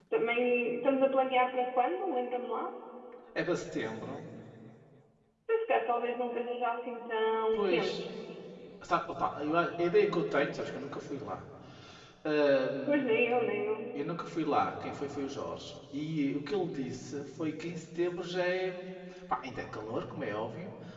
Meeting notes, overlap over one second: none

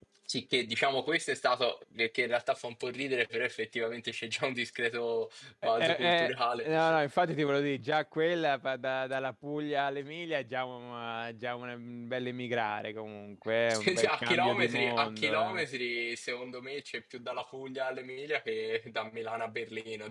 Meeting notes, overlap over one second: present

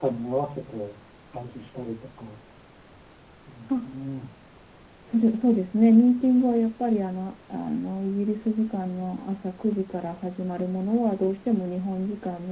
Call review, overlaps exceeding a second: none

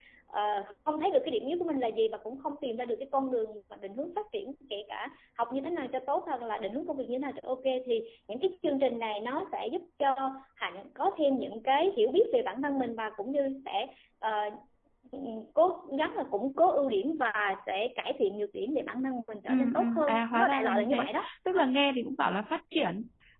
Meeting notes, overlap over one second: present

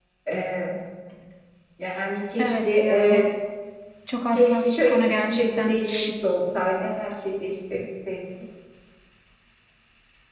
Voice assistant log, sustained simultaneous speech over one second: present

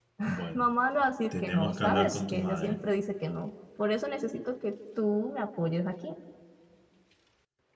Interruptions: present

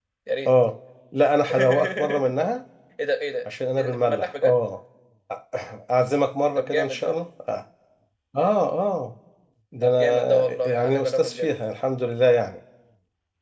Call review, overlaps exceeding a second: present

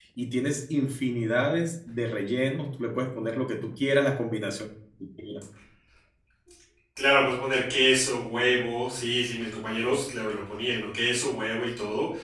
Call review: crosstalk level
none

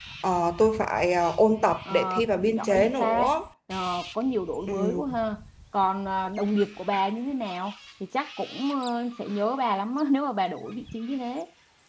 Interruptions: present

